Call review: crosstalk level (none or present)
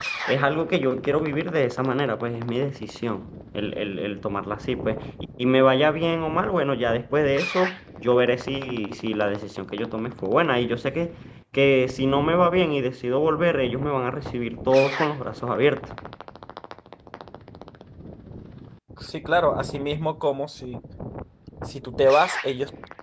none